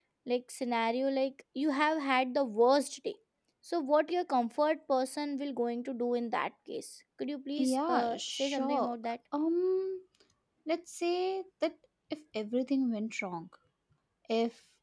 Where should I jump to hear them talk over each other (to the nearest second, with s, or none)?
8 s